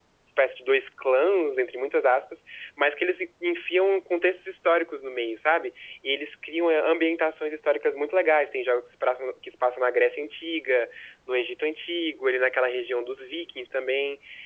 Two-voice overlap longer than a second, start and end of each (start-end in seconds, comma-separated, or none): none